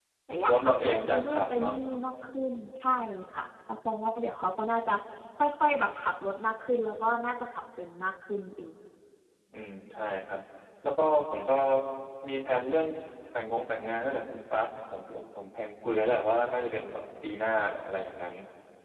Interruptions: present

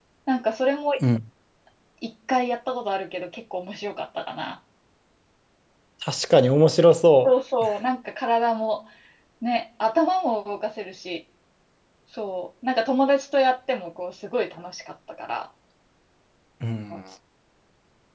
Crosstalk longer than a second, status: none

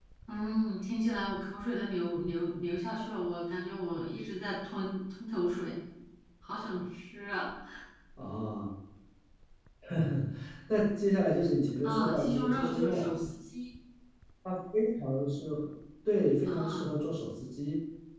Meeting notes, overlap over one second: present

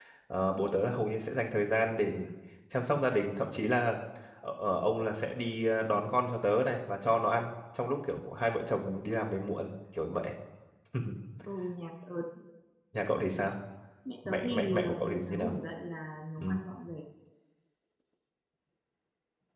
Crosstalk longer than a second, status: present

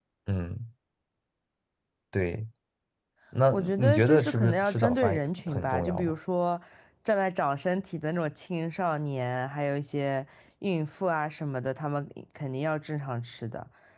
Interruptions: present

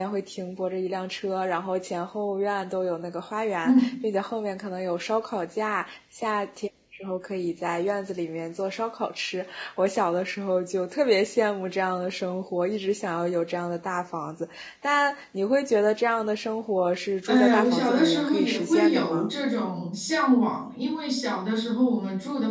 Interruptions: present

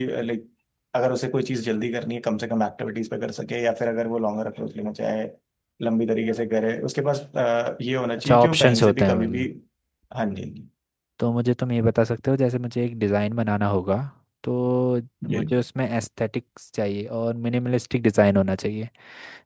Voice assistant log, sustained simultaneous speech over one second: present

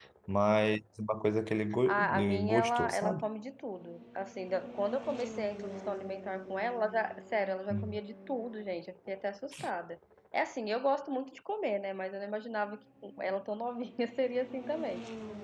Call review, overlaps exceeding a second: present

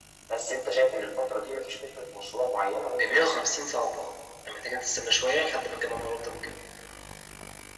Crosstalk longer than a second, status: none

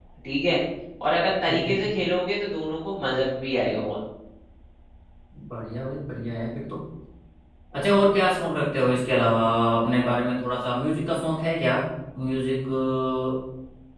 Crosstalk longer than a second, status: none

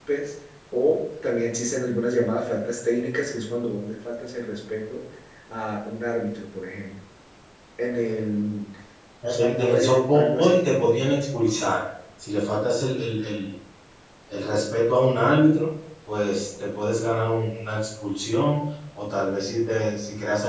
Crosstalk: present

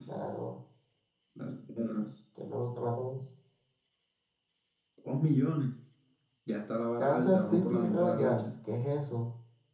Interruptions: present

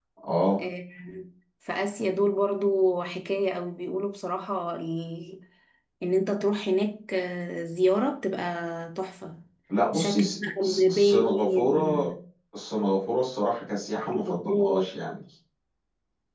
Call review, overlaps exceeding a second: present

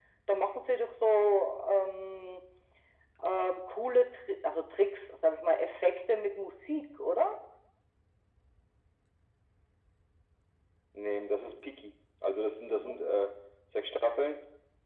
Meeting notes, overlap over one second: none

